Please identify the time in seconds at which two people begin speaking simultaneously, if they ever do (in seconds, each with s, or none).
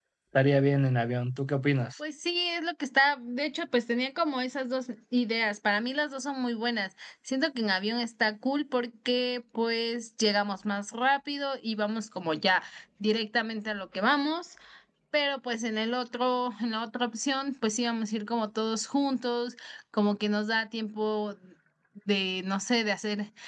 none